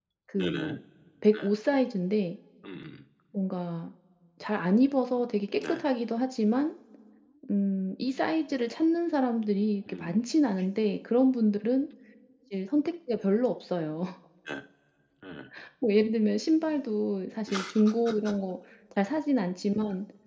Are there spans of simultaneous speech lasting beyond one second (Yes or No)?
No